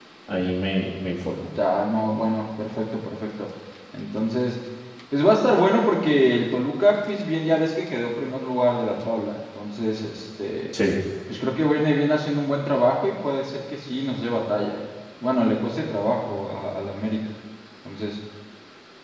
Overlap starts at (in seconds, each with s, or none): none